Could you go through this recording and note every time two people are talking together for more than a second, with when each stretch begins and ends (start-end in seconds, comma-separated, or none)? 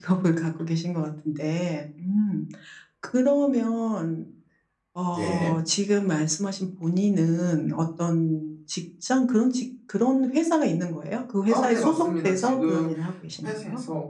11.5-12.9